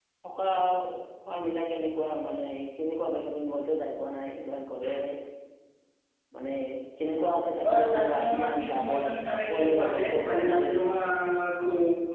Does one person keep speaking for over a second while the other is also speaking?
Yes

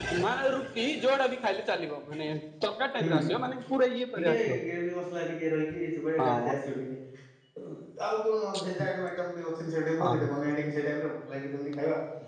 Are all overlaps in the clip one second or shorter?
Yes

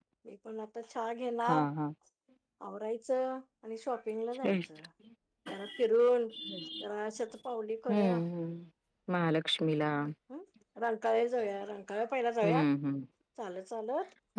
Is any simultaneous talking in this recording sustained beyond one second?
No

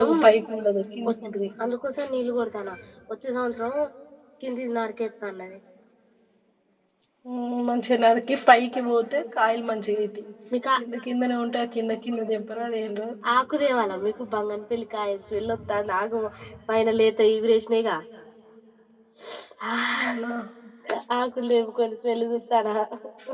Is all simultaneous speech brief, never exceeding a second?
Yes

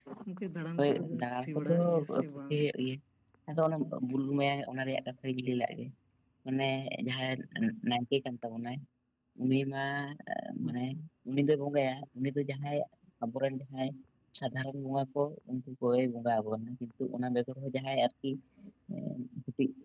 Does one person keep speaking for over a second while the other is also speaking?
Yes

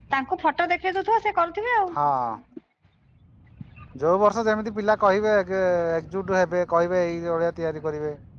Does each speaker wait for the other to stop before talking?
Yes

